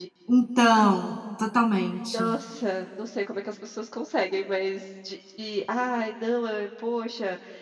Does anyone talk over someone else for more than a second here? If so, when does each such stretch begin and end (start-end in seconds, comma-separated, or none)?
none